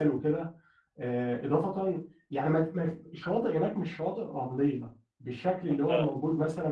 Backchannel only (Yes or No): Yes